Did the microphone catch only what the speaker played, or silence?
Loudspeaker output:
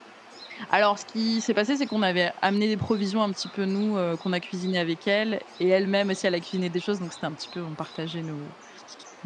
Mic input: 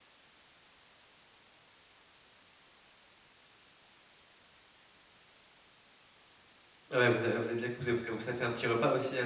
No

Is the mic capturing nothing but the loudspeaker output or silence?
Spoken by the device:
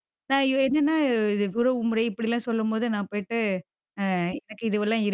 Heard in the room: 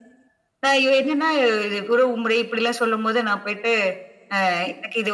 Yes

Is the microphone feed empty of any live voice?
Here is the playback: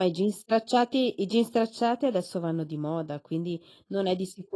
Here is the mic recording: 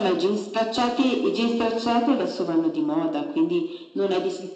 Yes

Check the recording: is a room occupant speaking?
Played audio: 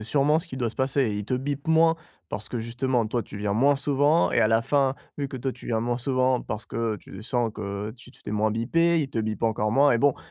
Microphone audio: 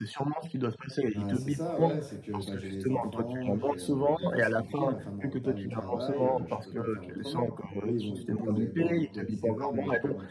Yes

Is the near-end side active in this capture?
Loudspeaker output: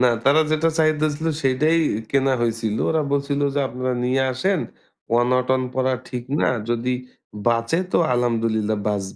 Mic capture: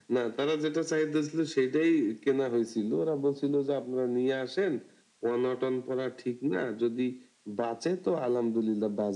No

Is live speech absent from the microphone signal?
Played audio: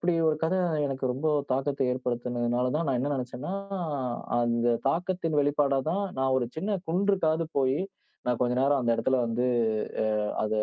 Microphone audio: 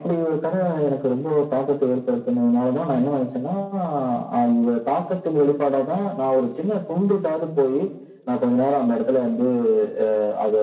Yes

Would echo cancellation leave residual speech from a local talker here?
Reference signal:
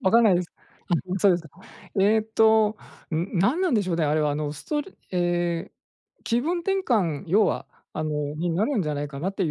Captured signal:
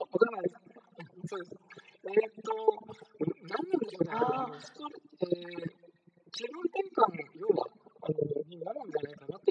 Yes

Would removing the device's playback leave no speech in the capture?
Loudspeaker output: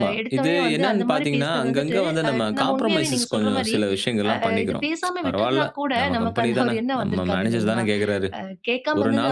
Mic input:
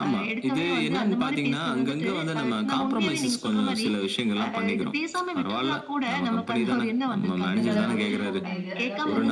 No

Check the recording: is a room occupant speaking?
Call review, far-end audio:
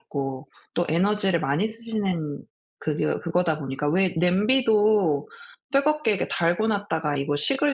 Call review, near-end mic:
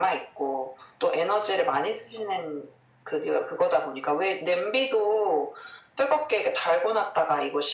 No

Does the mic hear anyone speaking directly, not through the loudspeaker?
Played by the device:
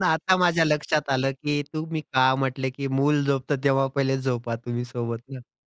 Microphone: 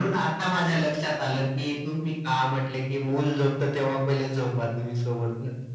No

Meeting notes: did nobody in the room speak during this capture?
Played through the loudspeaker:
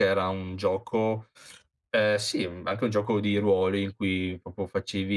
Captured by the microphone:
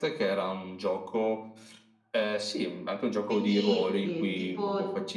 No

